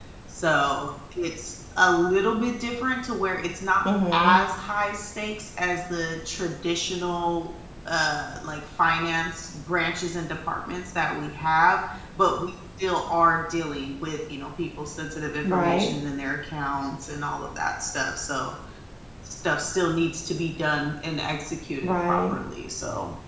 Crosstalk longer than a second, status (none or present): none